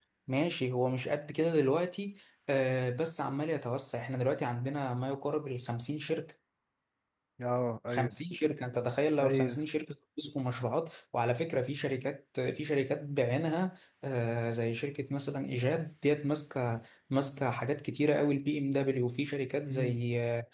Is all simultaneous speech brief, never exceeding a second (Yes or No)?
Yes